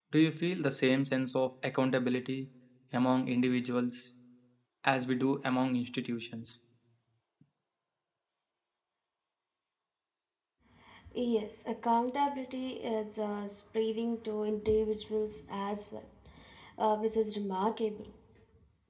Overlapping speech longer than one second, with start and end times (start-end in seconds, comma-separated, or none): none